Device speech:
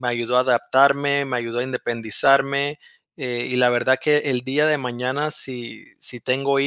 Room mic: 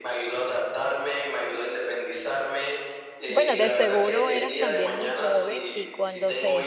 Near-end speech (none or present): present